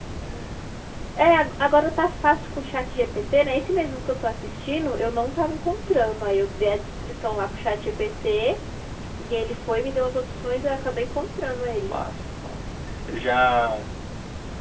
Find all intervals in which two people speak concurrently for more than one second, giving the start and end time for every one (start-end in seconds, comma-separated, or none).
none